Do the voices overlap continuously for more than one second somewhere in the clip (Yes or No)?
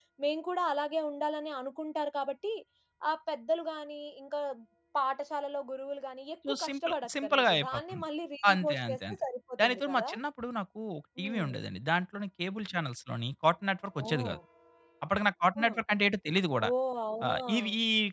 Yes